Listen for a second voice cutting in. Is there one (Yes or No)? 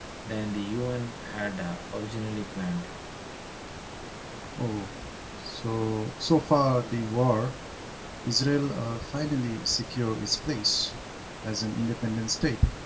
No